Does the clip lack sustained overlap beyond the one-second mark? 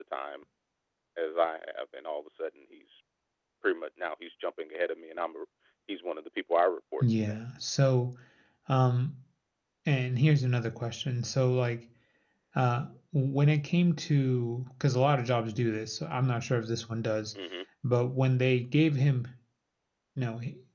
Yes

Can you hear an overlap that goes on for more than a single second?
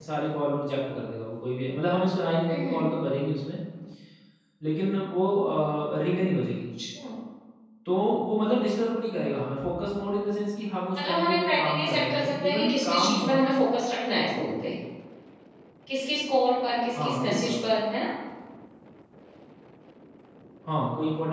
Yes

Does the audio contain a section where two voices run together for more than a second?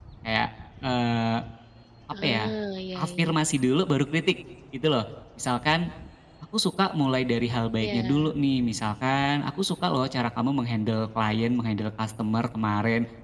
No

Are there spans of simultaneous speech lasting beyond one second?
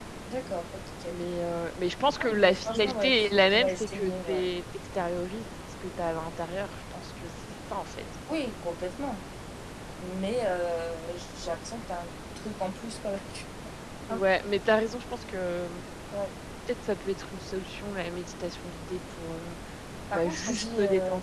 Yes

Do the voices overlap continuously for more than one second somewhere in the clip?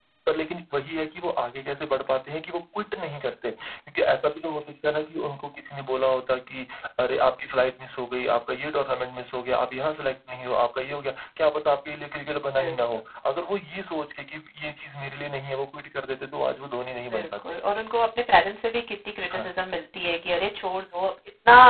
No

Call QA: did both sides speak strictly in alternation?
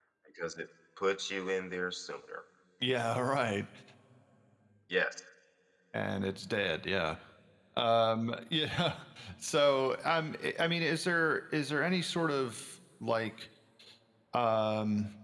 Yes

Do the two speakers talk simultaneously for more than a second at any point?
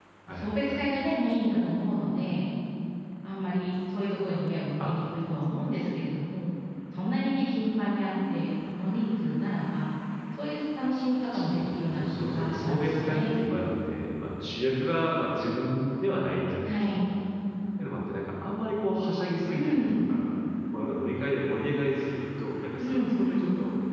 Yes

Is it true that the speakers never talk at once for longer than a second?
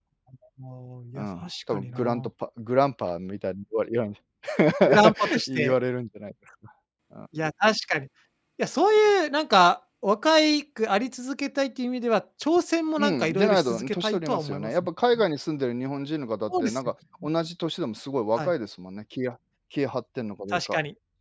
No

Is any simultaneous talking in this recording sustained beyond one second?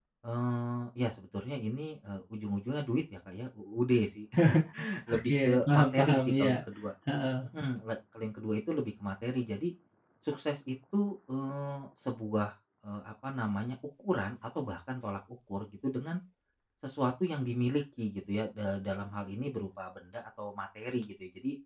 Yes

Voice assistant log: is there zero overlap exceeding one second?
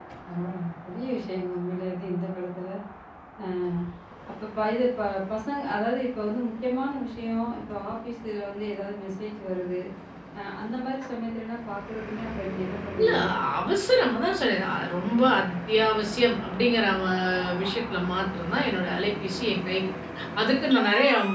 Yes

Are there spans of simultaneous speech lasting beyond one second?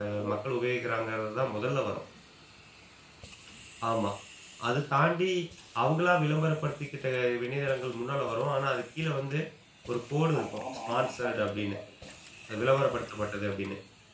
Yes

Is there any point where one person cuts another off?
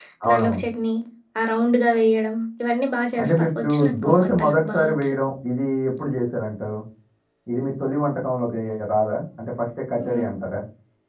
Yes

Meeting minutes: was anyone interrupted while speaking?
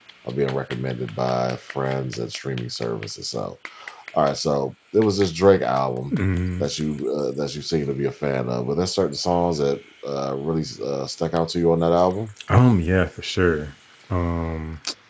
No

